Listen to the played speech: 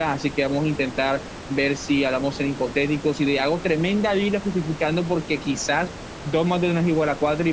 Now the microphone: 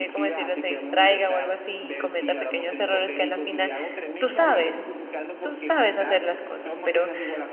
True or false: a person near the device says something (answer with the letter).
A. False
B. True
B